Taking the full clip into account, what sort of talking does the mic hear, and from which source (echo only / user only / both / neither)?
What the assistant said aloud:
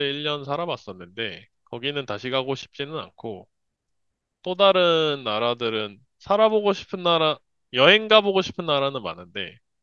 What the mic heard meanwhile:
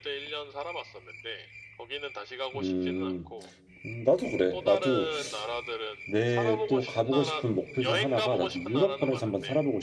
both